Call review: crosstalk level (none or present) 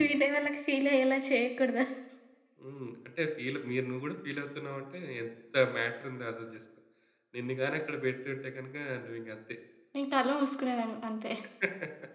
none